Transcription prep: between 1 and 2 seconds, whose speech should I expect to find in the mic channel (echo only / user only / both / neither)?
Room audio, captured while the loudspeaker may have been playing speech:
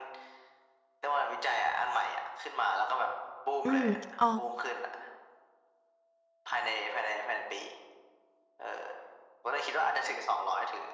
echo only